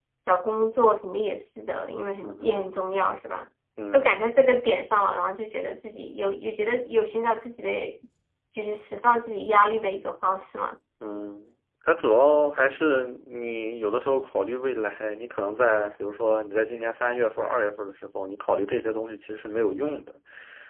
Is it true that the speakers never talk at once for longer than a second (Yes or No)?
Yes